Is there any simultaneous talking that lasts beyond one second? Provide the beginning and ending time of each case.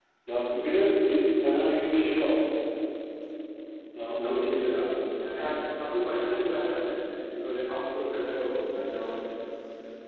none

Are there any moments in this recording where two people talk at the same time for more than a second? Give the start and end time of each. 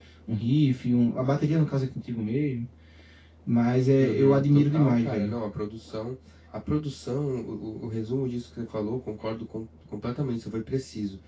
4.0-5.3

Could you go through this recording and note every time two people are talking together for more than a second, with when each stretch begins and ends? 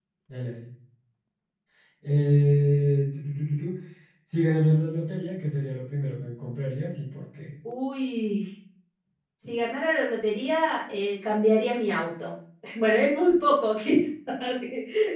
none

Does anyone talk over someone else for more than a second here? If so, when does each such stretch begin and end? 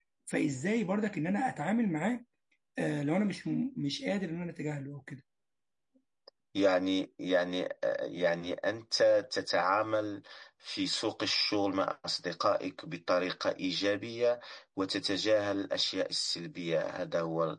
none

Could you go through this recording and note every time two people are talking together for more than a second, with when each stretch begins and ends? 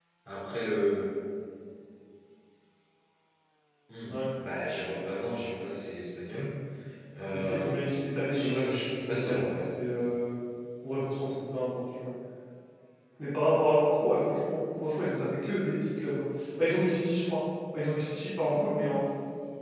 8.3-9.6

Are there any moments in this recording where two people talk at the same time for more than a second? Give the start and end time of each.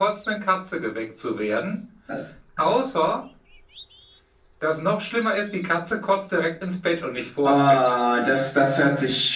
none

